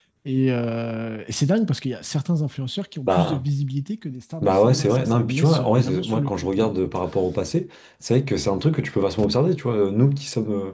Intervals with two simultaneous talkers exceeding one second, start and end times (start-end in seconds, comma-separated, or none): 4.4-6.7